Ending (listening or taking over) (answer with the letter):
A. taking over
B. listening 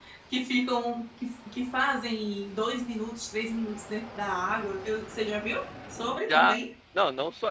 A